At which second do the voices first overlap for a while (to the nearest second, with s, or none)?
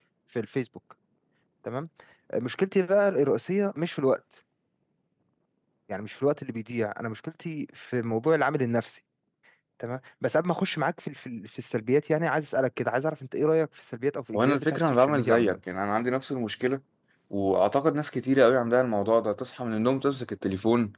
14 s